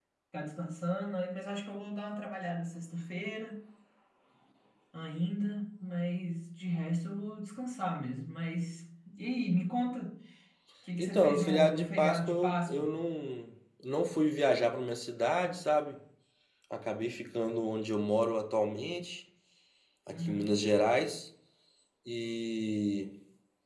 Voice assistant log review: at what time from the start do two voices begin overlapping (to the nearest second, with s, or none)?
11 s